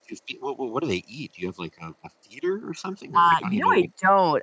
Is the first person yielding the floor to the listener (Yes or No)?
Yes